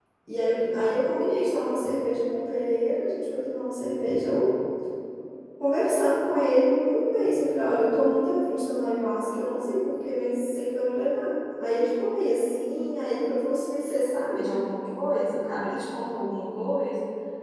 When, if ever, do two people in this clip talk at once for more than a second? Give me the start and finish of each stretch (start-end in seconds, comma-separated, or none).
none